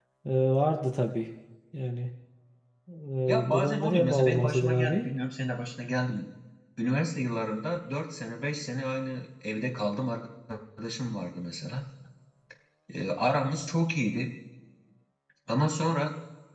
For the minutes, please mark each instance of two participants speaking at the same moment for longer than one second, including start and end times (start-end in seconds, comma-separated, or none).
3.5-5.1